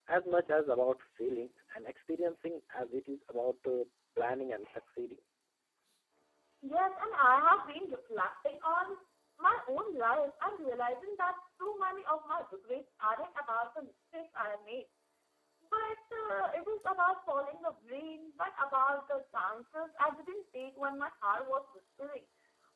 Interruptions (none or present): none